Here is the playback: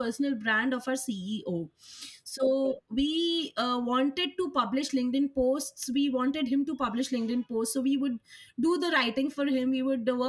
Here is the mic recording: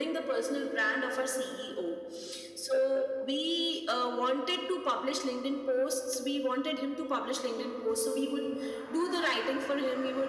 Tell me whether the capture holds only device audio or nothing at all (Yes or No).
Yes